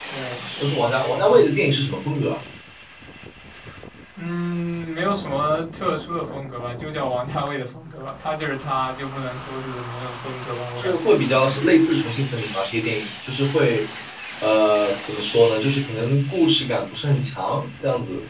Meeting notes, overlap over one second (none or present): none